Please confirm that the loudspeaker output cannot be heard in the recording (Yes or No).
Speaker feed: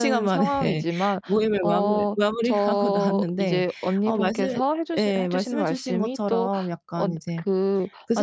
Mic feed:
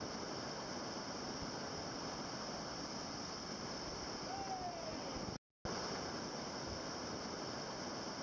Yes